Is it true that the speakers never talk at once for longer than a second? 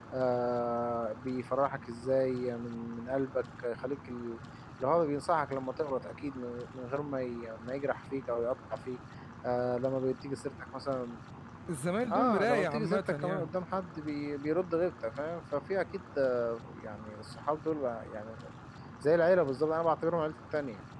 No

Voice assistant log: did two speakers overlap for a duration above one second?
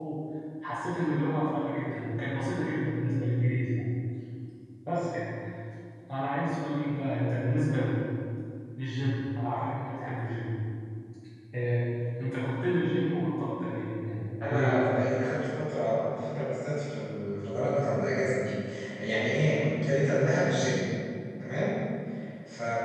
No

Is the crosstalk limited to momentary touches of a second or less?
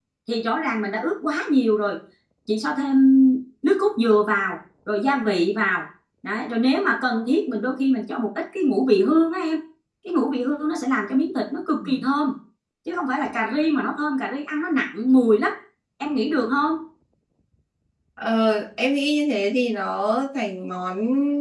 Yes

